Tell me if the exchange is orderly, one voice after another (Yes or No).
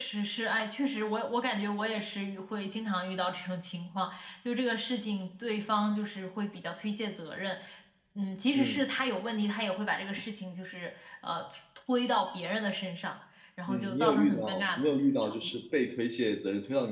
No